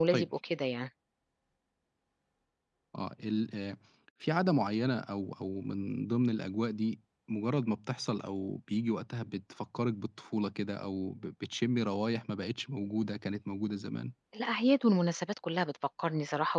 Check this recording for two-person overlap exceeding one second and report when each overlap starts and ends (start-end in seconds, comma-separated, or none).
none